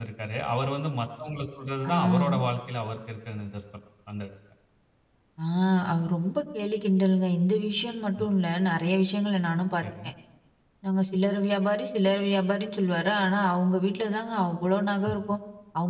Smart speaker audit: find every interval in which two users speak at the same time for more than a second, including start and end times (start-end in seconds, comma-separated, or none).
none